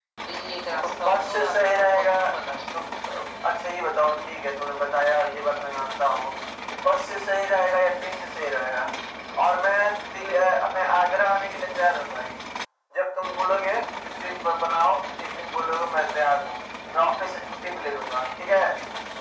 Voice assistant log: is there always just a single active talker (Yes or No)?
No